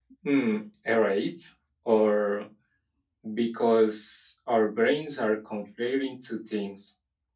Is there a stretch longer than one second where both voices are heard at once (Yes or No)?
No